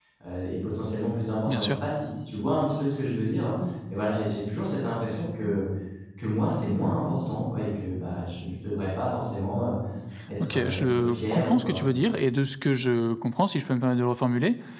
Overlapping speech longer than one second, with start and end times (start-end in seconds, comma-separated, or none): 10.4-11.8